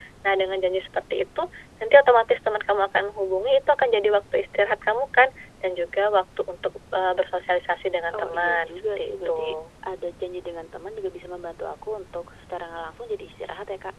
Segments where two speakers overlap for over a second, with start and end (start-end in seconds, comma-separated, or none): 8.1-9.5